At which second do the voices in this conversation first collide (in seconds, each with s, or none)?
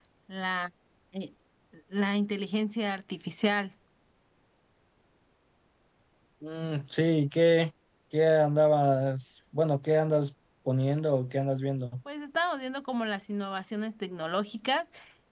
none